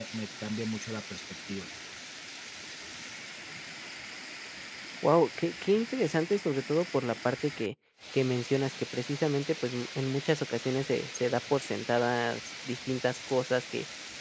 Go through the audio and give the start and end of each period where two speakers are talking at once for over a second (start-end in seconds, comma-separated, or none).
none